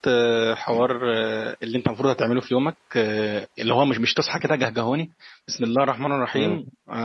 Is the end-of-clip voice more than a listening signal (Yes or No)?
No